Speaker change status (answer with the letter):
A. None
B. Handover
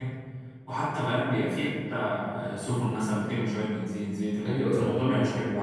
B